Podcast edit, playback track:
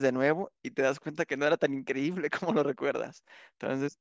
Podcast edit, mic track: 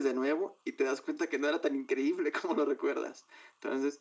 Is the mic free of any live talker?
Yes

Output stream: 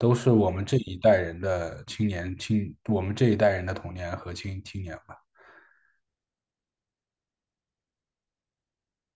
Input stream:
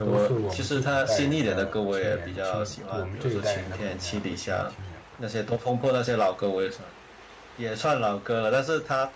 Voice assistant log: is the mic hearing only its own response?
No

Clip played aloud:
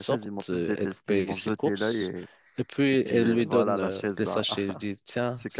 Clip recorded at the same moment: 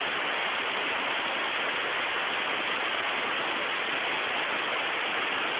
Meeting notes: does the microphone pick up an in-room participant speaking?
No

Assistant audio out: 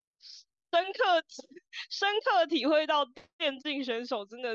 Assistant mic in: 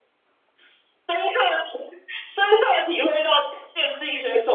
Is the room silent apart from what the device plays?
Yes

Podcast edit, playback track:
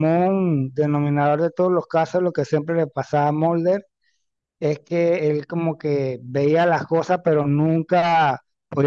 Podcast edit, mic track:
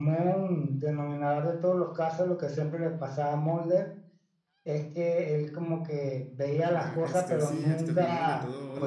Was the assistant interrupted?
Yes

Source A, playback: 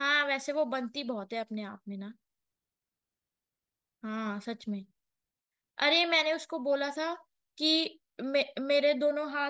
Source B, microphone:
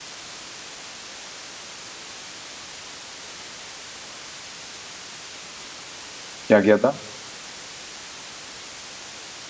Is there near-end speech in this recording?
Yes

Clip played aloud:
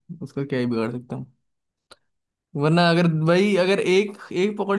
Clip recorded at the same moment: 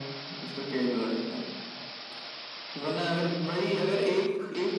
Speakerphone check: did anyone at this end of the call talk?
No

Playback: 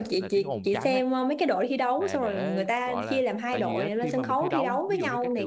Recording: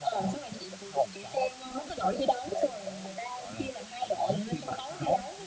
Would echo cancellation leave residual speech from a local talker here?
No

